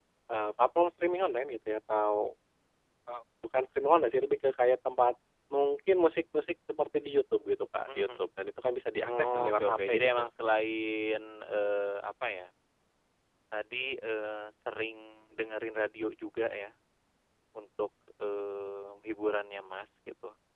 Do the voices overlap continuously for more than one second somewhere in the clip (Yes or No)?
Yes